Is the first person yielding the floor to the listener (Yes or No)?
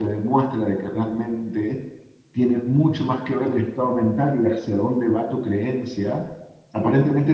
No